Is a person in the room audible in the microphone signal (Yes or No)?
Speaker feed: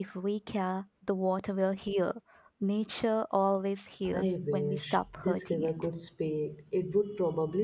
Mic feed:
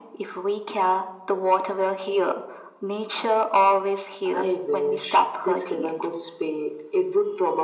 No